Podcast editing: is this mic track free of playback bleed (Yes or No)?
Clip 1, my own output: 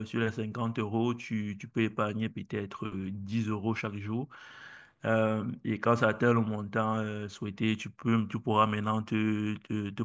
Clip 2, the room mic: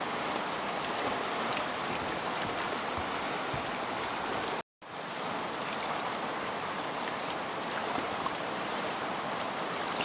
Yes